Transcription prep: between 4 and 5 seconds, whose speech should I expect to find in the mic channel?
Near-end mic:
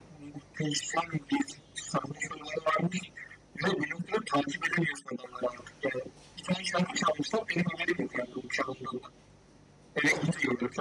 echo only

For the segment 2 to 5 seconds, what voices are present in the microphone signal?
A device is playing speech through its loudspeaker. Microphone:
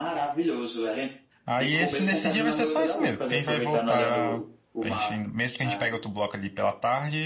both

